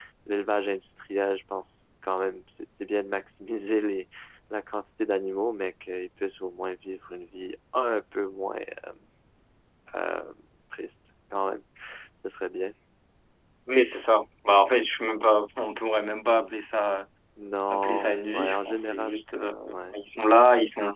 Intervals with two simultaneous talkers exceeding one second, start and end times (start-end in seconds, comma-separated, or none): 17.7-19.2